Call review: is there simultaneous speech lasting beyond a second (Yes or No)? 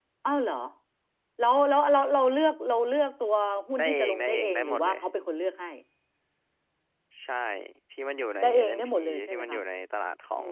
Yes